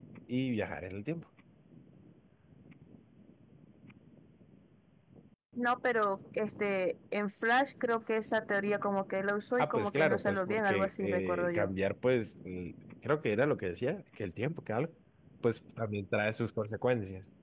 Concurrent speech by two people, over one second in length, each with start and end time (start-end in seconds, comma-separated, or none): 9.6-11.7